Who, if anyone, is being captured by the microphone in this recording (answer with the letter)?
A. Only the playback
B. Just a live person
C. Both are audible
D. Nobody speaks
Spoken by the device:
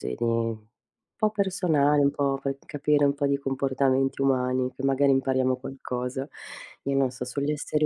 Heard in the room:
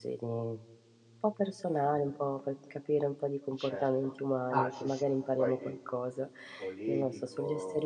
C